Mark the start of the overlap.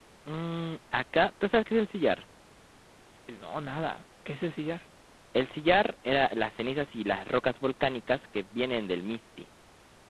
none

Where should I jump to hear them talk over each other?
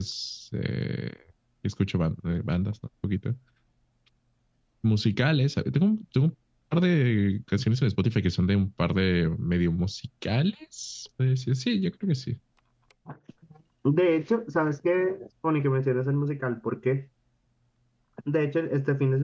none

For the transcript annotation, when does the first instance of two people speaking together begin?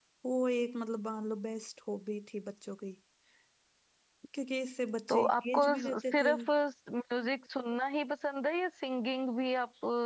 5.1 s

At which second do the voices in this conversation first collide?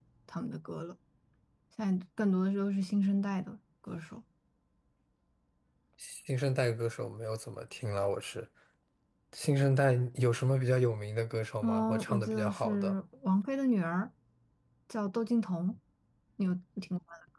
11.6 s

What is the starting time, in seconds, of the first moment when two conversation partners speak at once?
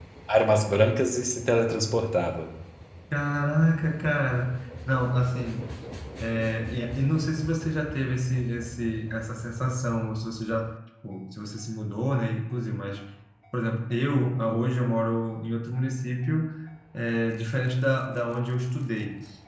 none

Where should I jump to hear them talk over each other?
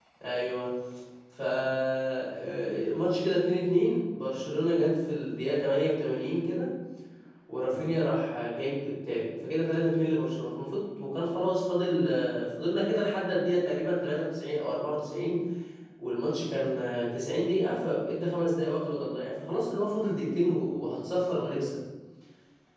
none

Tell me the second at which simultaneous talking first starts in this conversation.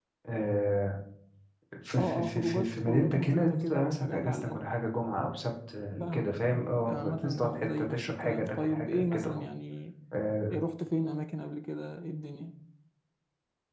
2.0 s

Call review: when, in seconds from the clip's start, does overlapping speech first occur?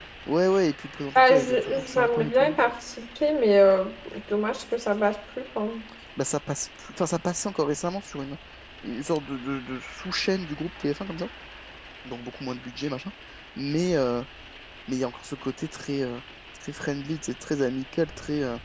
1.1 s

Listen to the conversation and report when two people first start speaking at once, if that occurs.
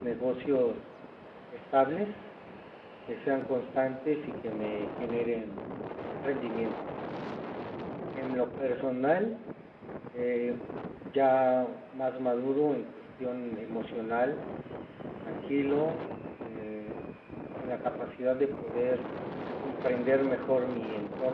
none

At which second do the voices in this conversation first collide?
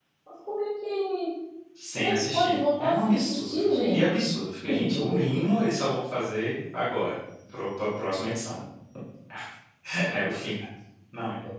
2.0 s

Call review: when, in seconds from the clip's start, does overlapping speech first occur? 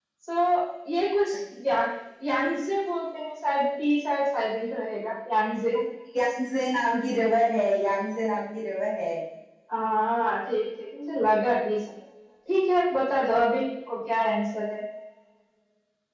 none

